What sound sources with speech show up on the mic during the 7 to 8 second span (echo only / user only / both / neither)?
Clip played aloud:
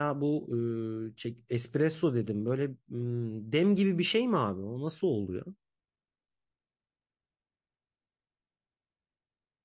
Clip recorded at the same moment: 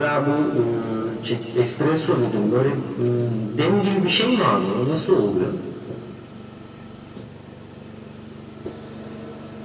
neither